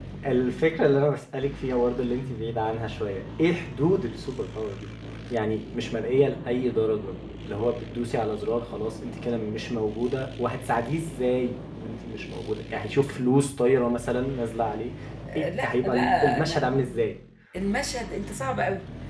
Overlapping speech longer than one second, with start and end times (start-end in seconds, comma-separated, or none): 15.3-16.6